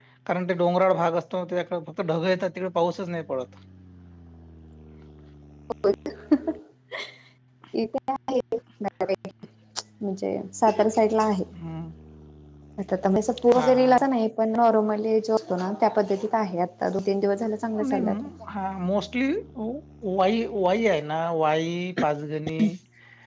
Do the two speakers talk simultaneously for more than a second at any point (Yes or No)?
No